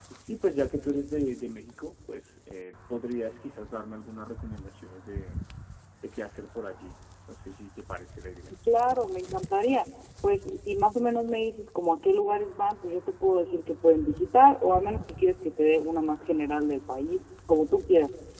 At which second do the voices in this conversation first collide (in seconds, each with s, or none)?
none